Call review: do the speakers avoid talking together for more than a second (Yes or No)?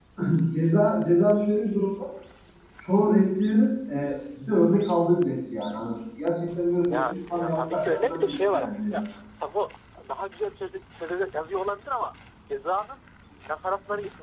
No